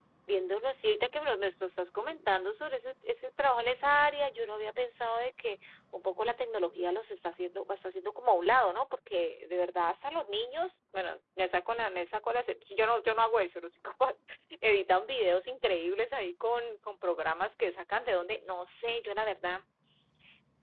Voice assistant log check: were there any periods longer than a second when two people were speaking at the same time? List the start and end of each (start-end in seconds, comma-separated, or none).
none